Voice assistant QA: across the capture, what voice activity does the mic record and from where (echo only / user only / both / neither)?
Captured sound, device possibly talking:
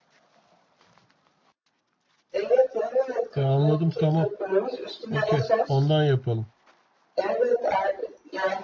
both